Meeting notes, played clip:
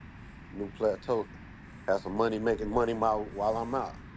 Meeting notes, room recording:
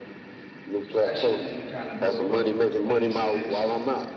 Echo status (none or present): present